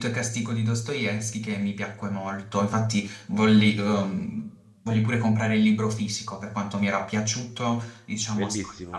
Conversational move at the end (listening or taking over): taking over